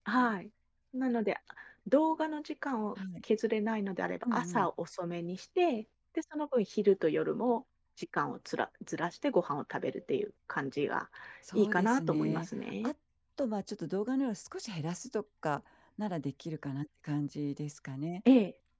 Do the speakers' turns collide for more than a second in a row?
Yes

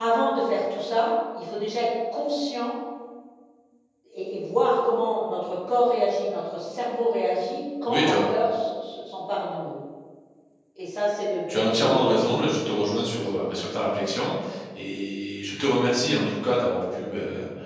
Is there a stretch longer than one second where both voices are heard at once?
Yes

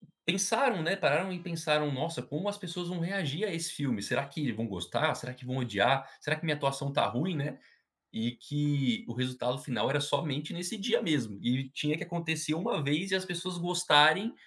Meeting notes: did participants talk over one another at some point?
No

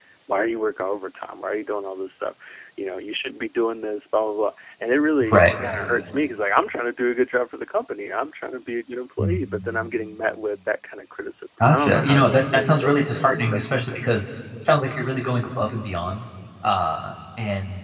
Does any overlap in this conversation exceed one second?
Yes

